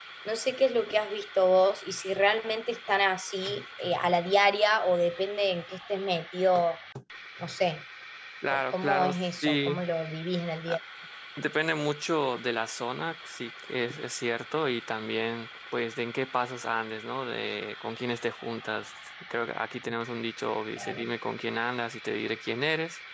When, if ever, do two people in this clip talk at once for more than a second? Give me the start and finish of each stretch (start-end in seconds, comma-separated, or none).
8.5-9.8